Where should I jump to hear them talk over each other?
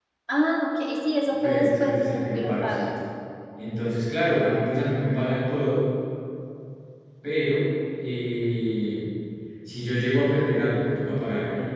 1.4 s

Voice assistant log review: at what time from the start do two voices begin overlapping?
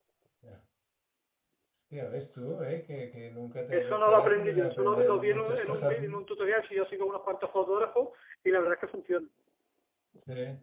3.7 s

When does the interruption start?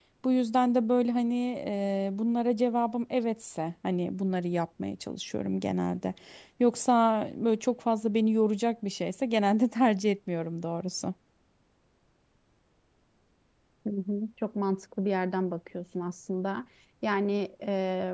none

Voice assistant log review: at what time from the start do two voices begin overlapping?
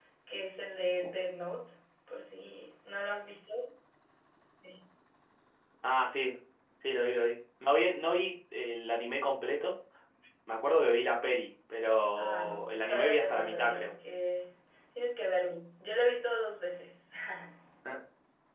12.2 s

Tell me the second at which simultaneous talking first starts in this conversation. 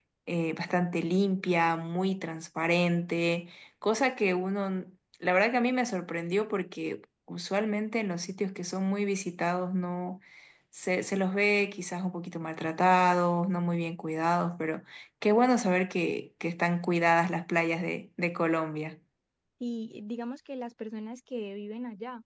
none

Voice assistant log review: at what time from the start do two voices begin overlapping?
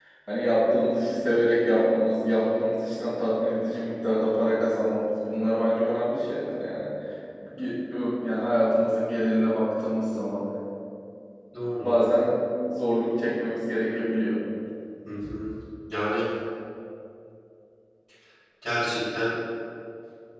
none

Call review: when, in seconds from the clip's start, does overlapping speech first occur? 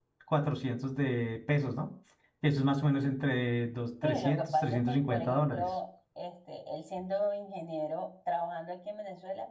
4.0 s

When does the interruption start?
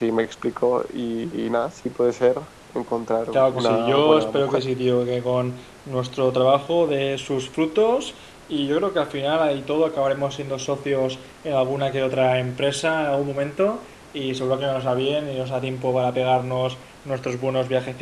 3.3 s

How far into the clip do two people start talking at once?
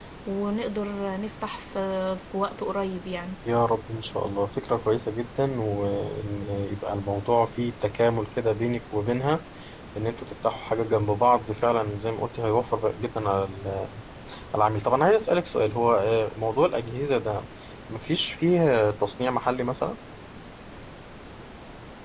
none

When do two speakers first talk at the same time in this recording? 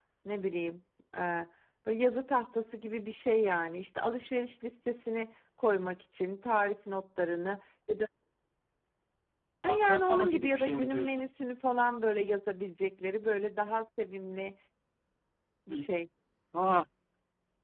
9.7 s

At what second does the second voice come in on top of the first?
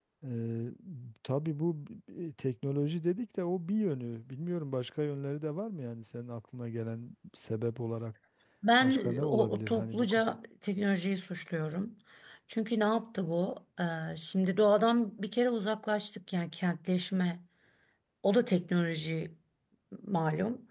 8.8 s

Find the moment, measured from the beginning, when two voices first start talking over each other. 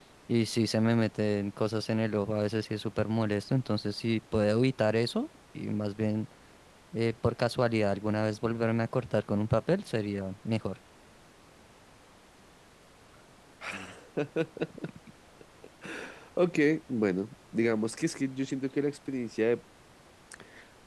none

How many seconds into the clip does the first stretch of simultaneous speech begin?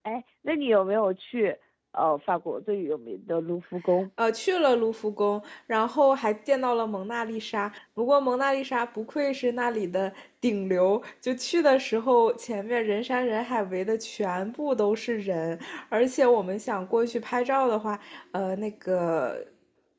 none

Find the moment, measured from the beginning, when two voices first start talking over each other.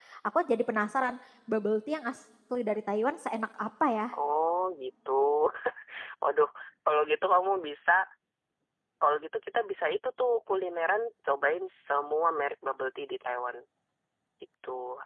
none

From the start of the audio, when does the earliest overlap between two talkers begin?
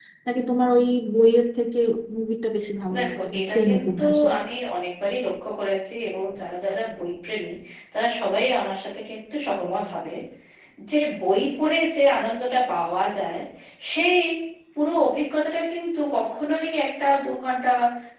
3.0 s

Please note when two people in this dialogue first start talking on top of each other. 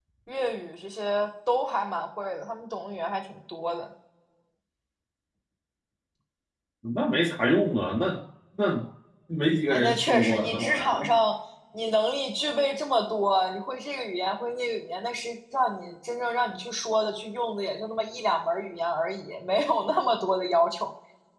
9.7 s

